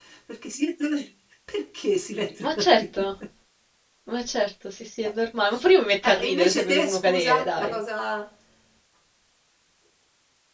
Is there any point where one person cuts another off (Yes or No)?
Yes